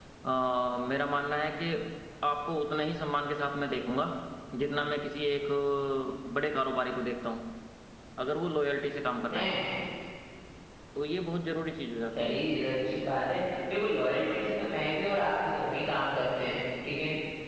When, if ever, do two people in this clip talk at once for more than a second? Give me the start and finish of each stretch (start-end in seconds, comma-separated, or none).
none